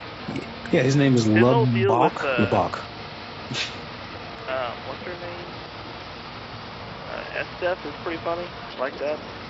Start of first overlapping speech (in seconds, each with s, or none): 1.3 s